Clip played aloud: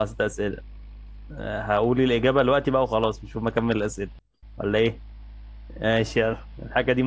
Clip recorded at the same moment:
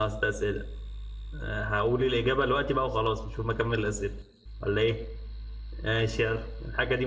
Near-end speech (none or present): none